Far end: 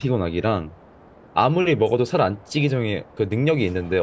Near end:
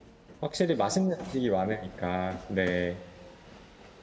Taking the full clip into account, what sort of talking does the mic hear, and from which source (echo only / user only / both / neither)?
user only